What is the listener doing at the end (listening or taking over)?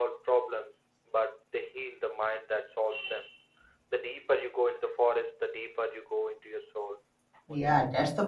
taking over